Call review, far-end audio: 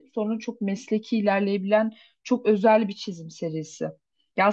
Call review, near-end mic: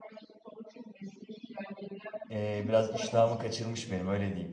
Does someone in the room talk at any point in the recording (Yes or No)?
Yes